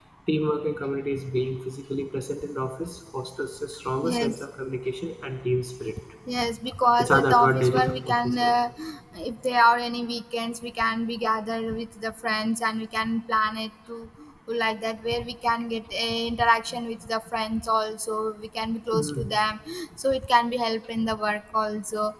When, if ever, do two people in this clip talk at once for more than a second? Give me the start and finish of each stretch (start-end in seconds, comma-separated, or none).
7.0-8.5